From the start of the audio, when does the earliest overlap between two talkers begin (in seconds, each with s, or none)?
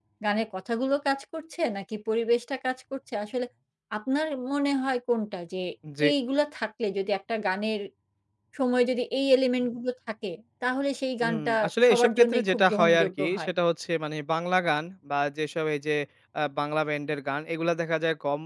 11.2 s